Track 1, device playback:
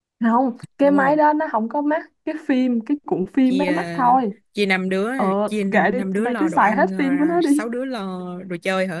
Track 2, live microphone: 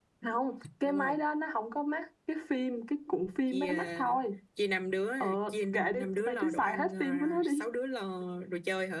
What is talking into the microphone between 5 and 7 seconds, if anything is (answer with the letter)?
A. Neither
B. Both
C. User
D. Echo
D